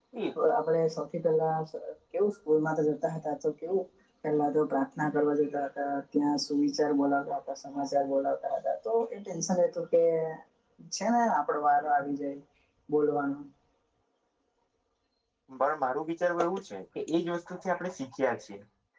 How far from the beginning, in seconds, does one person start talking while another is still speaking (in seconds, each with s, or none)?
none